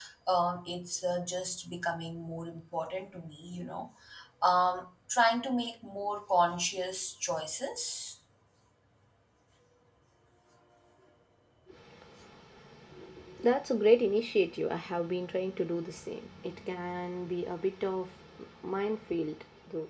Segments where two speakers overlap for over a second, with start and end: none

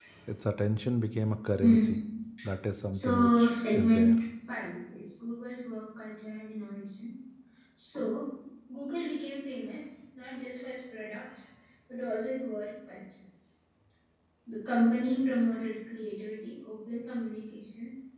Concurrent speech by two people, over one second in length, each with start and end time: 2.9-4.2

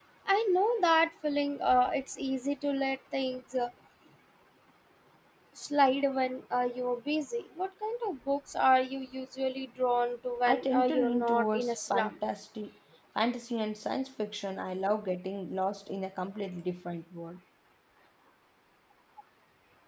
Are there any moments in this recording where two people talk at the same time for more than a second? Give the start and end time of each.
10.5-12.1

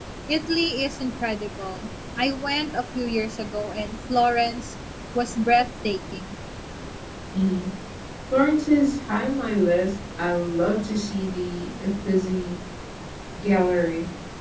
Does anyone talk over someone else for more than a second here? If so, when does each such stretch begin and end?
none

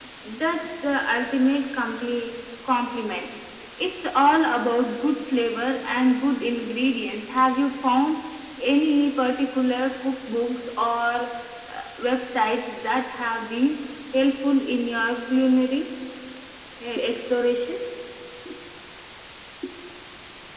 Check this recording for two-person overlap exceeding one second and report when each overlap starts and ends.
none

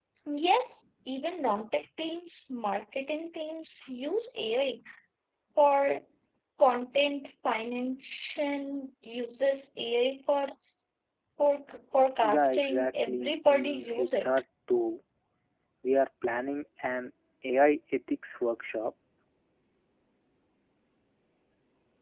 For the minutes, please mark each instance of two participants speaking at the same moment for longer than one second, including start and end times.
12.2-14.3

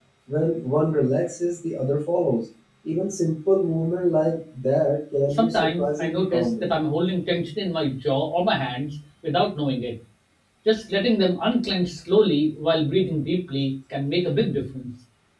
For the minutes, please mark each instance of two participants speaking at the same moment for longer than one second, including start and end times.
5.3-6.7

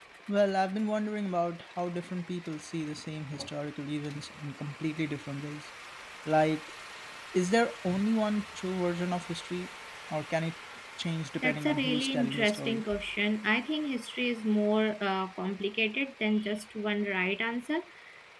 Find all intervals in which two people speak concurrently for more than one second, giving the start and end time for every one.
11.4-12.8

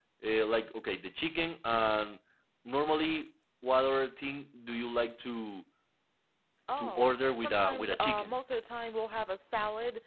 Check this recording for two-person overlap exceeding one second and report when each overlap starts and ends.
6.8-8.4

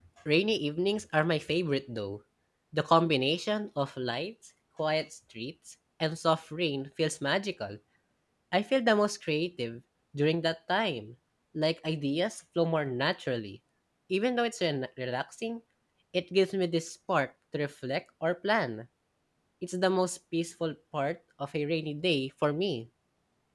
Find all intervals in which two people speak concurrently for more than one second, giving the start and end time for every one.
none

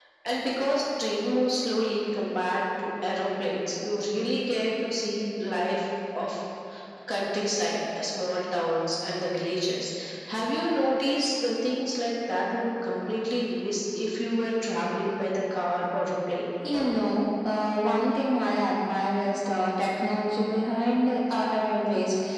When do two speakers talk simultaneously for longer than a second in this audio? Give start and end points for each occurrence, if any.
none

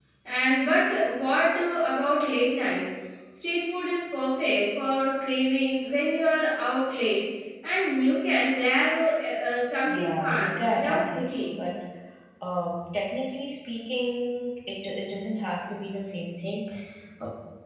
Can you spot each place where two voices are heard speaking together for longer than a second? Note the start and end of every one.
9.9-11.5

